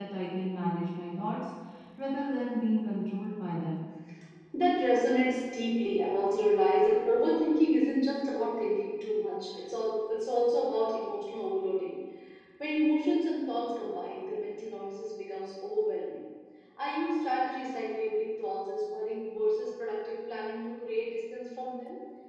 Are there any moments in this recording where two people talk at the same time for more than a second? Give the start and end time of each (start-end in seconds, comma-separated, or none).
none